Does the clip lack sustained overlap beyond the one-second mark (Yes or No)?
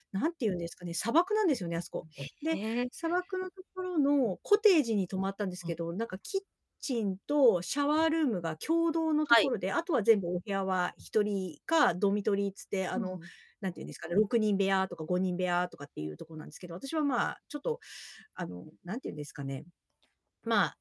Yes